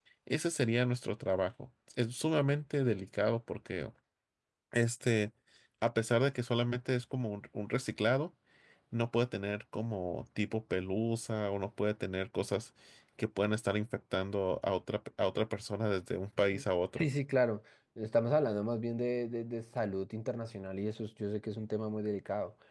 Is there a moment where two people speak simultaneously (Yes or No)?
No